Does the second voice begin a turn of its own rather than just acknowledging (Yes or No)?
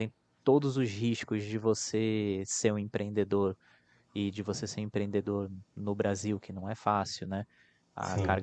No